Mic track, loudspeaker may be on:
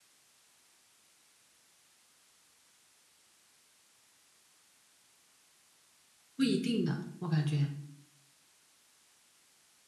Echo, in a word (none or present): none